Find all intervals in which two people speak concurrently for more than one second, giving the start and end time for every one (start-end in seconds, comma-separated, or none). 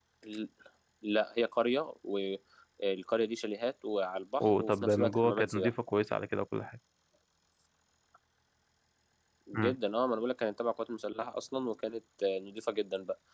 4.4-5.7